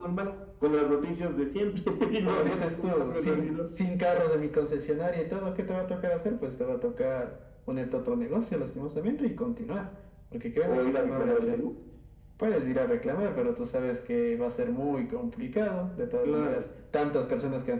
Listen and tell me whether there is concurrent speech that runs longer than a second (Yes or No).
Yes